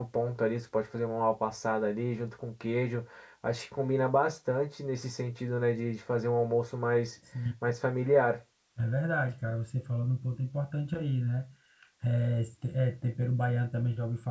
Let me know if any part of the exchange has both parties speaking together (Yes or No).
No